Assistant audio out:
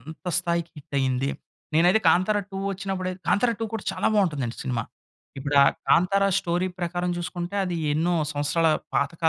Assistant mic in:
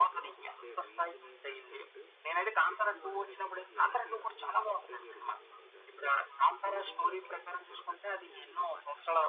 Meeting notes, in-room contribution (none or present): present